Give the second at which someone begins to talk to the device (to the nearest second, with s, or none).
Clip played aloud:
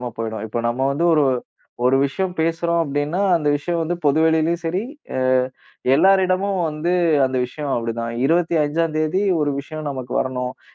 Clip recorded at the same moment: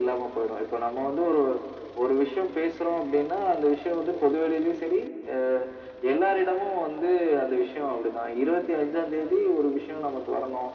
none